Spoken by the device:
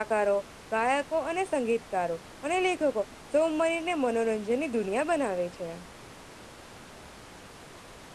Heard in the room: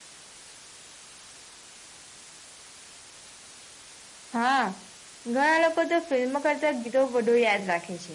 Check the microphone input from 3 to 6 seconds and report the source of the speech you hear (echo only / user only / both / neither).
user only